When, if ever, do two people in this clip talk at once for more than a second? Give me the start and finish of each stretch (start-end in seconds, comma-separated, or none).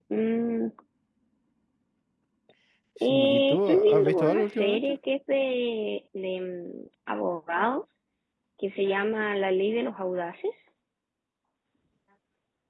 3.0-5.0